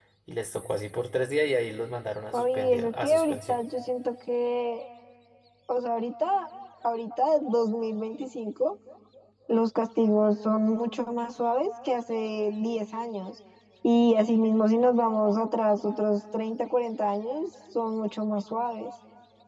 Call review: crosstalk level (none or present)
present